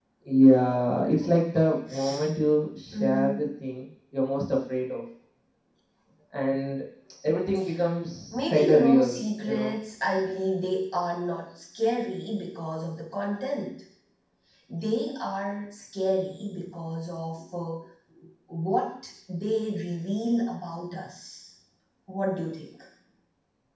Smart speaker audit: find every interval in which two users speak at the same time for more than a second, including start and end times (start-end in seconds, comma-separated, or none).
8.3-9.7